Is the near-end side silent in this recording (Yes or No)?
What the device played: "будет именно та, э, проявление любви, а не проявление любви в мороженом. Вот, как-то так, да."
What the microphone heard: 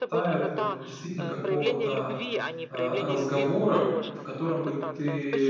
No